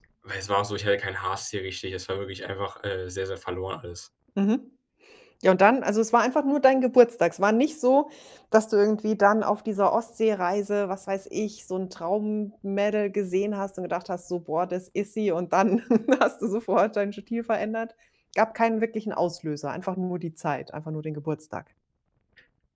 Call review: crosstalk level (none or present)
none